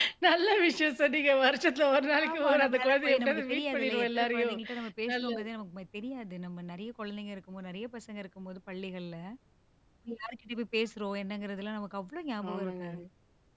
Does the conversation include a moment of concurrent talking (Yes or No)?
Yes